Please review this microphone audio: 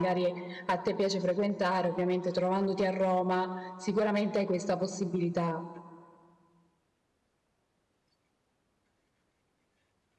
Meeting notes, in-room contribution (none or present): none